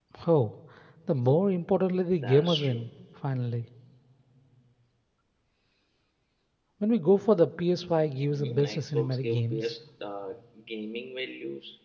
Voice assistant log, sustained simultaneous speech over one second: present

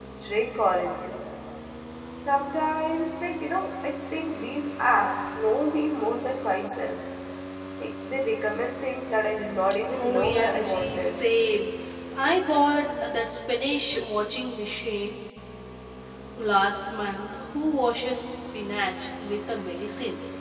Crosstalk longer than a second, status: present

